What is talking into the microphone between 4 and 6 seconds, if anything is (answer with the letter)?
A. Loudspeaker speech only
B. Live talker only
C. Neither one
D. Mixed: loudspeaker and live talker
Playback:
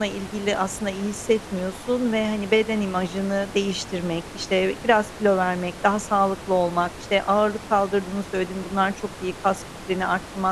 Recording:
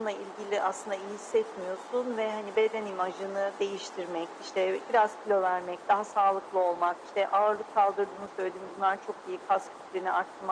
A